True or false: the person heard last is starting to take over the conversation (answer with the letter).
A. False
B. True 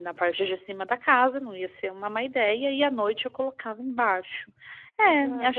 B